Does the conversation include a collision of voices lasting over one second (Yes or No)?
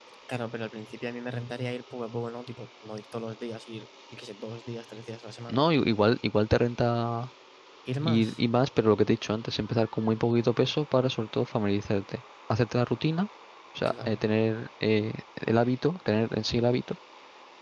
No